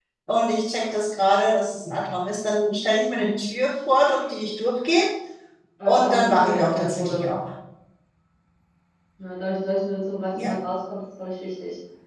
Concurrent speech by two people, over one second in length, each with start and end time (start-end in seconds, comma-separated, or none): 5.8-7.3